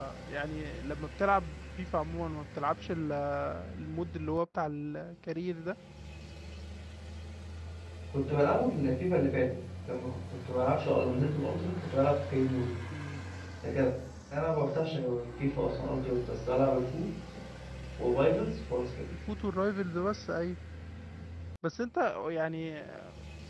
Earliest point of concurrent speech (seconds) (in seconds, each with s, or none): none